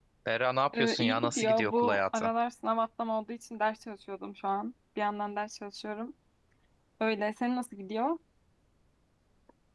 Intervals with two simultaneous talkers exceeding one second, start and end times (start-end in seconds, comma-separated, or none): 0.7-2.3